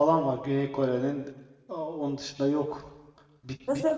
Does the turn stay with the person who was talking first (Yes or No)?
Yes